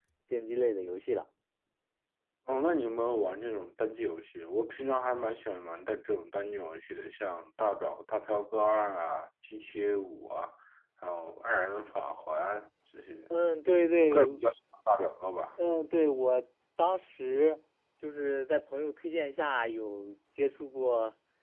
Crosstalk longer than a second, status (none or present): none